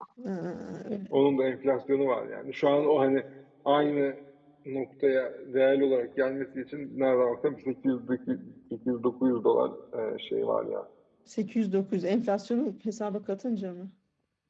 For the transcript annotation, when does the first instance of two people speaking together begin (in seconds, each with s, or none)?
none